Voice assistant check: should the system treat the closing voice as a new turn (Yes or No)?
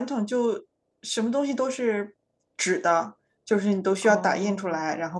No